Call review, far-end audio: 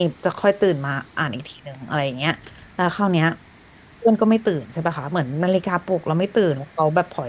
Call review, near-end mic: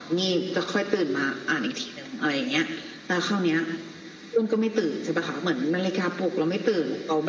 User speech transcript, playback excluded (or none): none